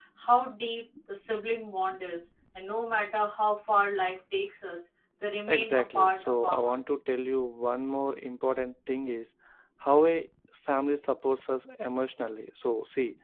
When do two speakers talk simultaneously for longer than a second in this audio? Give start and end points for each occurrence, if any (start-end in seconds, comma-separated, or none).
5.5-6.8